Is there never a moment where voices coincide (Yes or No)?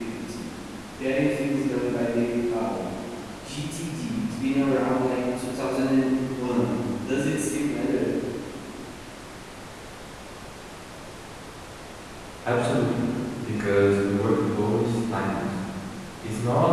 Yes